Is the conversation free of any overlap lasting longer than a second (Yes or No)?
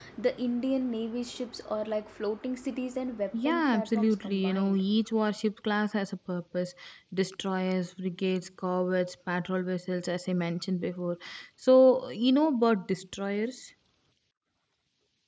No